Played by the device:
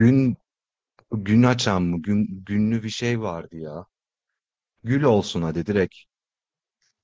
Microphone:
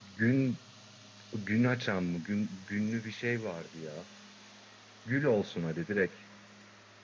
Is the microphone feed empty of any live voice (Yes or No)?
Yes